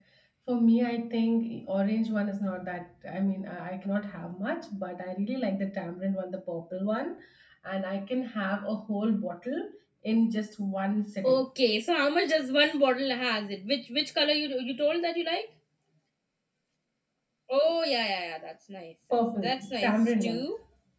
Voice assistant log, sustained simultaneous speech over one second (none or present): present